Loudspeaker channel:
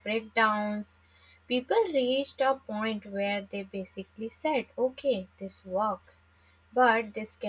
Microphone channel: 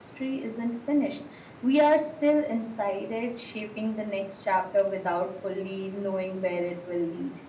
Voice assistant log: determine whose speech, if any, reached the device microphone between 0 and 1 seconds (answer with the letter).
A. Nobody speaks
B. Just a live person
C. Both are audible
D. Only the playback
B